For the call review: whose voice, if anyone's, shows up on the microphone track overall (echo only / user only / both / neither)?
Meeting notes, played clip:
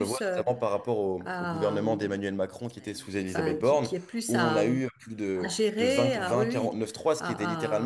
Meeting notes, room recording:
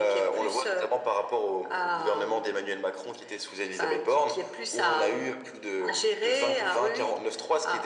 echo only